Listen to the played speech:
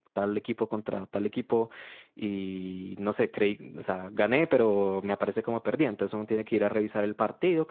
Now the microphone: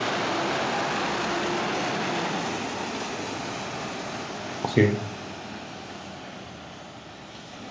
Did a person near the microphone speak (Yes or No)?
Yes